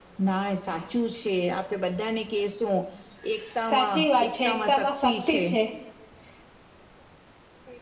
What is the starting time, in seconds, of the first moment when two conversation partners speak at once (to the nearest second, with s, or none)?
4 s